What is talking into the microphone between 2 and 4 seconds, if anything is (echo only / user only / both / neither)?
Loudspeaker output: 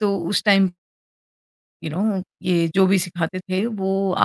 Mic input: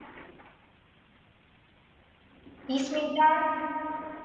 user only